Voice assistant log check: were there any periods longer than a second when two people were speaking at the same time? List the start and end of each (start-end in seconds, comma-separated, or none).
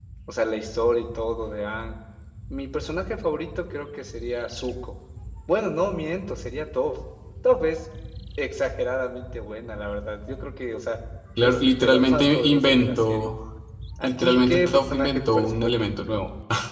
11.4-13.3, 14.0-15.7